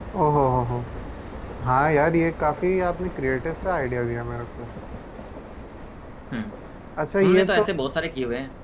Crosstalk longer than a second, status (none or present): none